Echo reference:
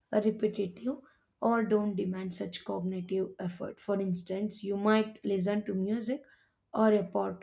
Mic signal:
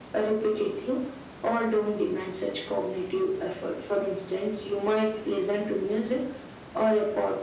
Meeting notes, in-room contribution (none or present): none